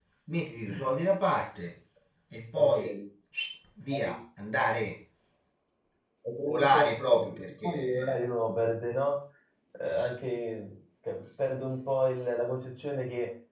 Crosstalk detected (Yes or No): Yes